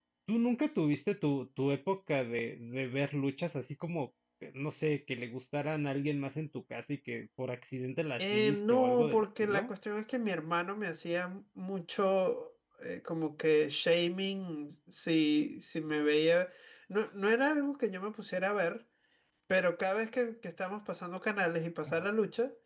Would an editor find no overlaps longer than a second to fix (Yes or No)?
No